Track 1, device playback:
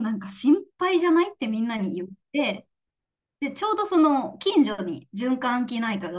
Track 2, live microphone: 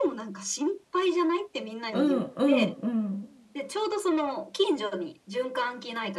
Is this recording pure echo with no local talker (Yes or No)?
No